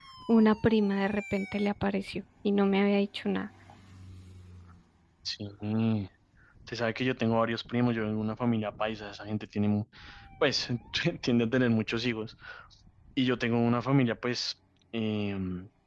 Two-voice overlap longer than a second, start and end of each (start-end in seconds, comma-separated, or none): none